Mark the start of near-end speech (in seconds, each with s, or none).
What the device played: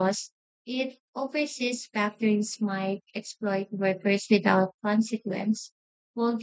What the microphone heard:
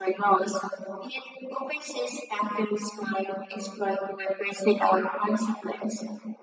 none